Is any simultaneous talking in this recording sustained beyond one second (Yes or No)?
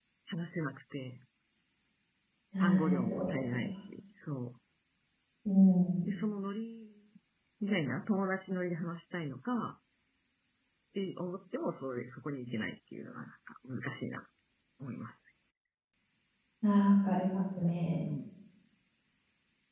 Yes